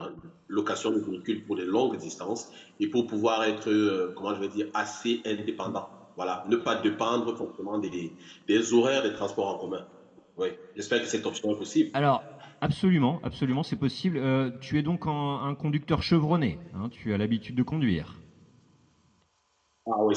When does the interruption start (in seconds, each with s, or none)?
none